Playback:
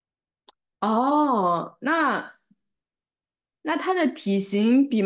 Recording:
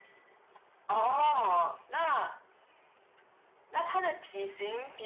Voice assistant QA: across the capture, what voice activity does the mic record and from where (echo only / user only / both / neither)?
echo only